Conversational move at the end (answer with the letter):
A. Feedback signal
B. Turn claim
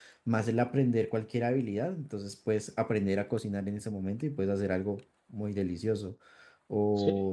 B